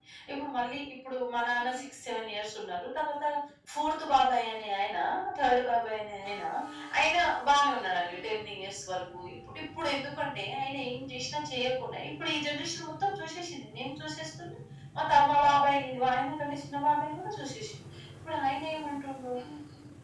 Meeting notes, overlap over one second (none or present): none